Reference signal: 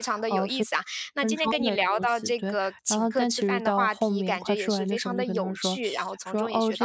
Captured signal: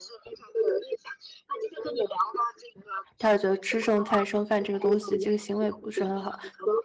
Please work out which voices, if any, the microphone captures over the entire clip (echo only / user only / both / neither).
both